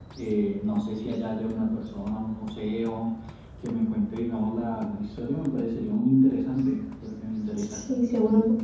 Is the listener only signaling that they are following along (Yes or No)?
No